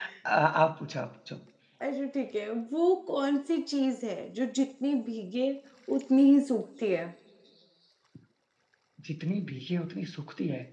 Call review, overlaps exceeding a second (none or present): none